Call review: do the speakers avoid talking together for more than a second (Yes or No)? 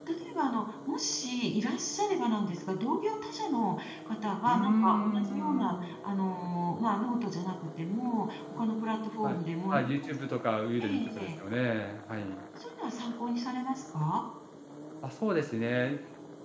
No